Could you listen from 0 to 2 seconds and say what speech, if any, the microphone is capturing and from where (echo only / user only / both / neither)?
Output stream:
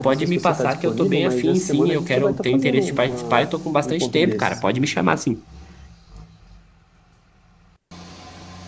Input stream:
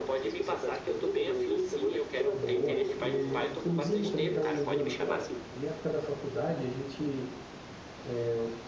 echo only